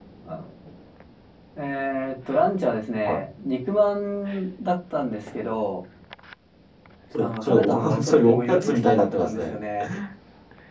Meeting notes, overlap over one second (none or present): present